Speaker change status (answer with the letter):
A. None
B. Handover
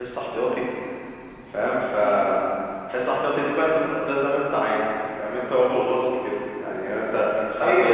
A